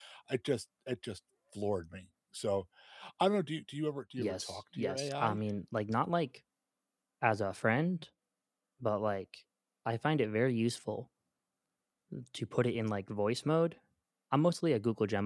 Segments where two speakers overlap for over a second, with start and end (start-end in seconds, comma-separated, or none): 4.2-5.4